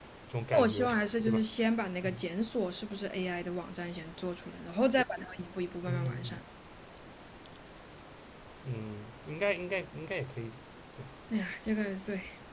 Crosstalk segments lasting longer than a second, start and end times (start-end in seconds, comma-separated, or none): none